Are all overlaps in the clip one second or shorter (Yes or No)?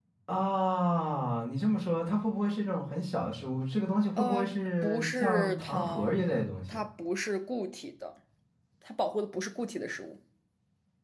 No